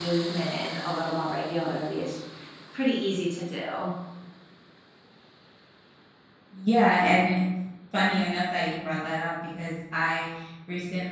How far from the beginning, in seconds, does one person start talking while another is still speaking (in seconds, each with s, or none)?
none